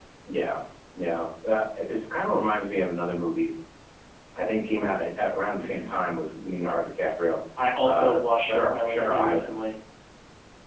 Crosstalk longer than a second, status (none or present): present